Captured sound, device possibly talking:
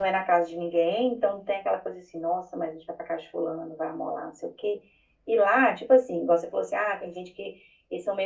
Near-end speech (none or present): present